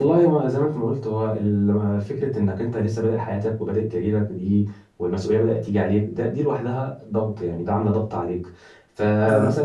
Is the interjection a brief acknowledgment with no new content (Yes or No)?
Yes